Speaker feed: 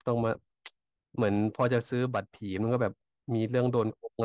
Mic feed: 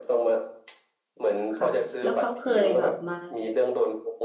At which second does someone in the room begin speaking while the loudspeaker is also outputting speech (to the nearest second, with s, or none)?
2 s